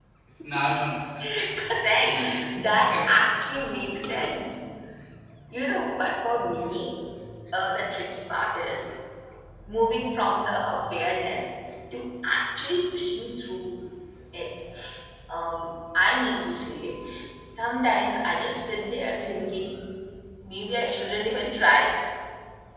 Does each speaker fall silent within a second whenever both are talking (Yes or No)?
No